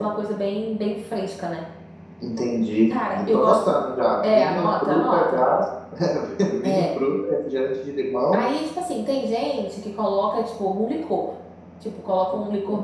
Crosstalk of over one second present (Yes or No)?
Yes